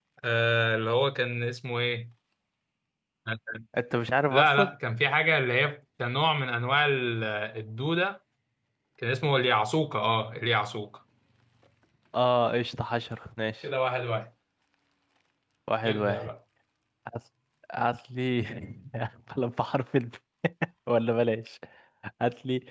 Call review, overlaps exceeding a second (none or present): none